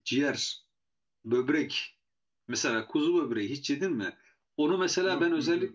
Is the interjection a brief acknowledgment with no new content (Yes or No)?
Yes